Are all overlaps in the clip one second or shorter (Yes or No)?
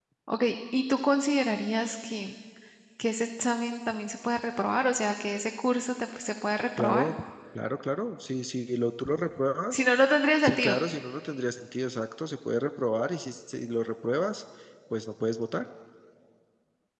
Yes